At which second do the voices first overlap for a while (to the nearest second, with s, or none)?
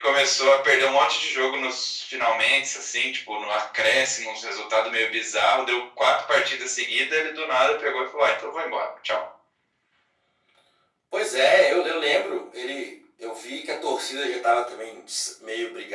none